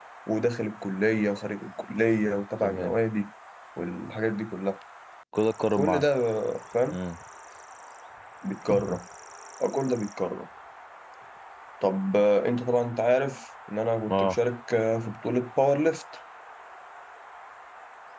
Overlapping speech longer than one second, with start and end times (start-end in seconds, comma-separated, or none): none